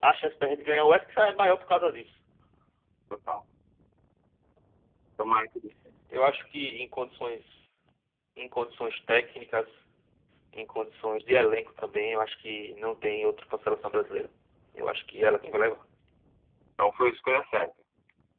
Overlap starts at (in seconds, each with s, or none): none